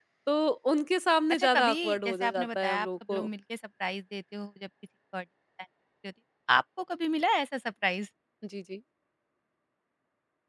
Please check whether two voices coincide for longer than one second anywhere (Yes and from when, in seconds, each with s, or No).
Yes, from 1.3 s